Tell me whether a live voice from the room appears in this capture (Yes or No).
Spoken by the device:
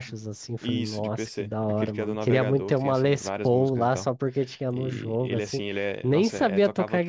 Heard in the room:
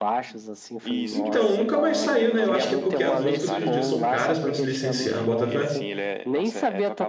Yes